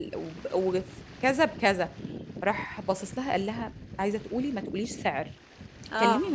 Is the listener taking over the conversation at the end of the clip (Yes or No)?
No